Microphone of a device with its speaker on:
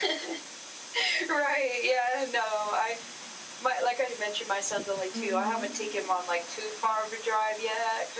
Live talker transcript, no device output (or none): Mhm.